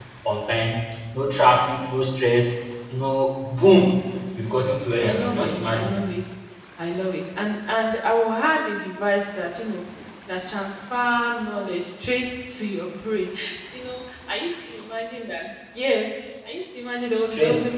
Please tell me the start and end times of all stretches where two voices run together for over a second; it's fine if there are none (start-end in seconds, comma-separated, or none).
4.4-6.0